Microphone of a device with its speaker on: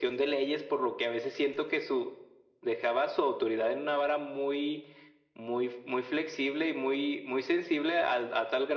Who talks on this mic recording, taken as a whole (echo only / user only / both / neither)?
echo only